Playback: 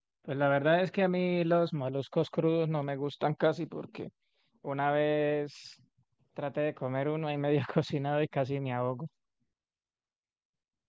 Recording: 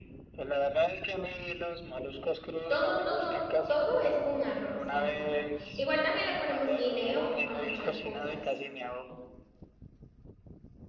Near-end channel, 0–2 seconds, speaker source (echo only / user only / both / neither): echo only